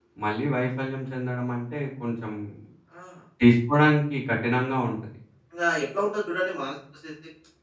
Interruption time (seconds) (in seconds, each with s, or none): none